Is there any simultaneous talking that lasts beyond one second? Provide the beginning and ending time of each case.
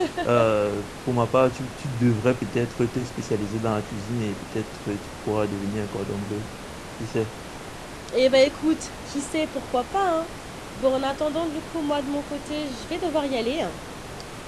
none

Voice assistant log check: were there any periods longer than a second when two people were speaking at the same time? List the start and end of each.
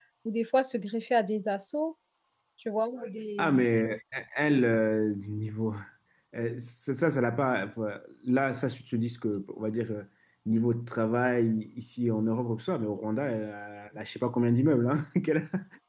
none

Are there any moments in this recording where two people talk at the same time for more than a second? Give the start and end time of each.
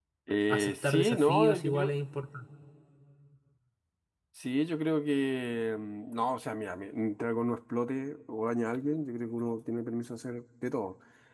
0.5-1.9

